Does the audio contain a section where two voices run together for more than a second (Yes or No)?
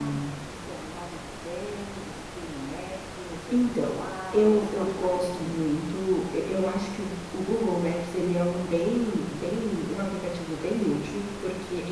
Yes